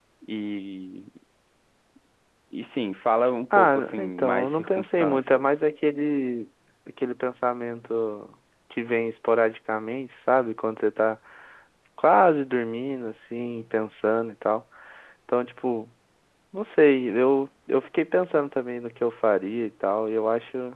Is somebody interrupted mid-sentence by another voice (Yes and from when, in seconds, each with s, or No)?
Yes, from 3.5 s